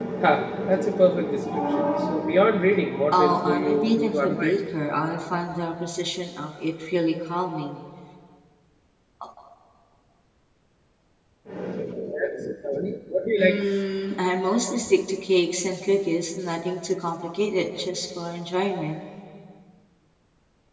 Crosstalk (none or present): present